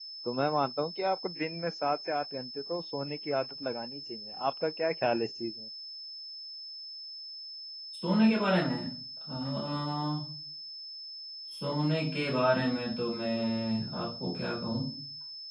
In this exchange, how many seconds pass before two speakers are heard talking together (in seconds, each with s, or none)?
none